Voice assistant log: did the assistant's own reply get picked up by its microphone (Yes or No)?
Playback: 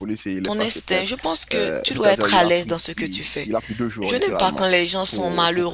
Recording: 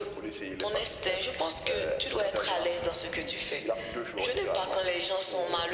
Yes